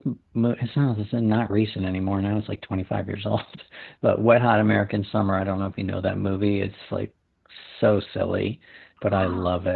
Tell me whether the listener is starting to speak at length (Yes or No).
No